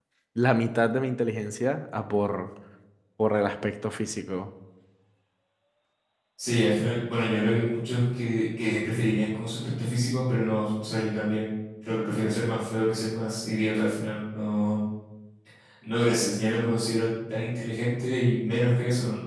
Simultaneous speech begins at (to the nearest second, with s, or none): none